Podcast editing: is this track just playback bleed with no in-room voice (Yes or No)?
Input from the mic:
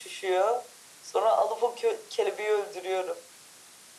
Yes